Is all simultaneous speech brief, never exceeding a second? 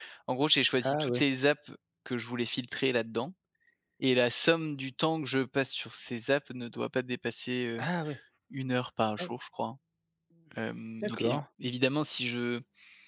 Yes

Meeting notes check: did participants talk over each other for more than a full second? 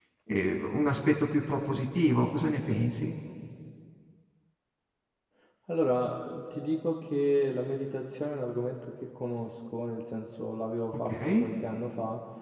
No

